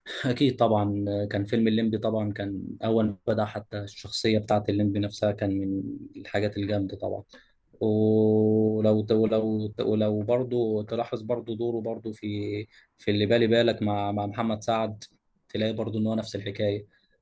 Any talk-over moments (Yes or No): No